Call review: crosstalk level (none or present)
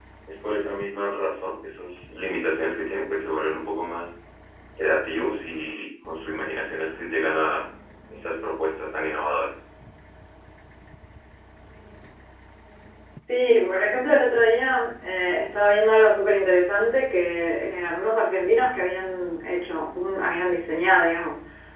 none